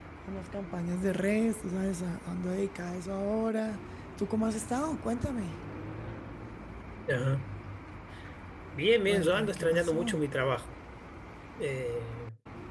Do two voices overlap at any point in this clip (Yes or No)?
Yes